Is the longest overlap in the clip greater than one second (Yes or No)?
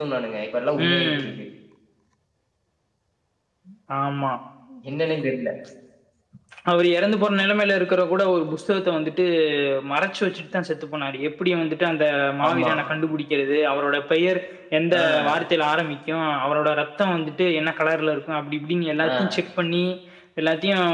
No